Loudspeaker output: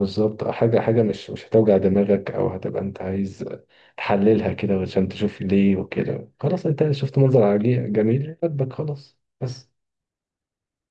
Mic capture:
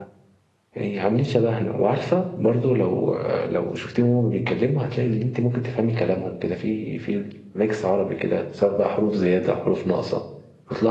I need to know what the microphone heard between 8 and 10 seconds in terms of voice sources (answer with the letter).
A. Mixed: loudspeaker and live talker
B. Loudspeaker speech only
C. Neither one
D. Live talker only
D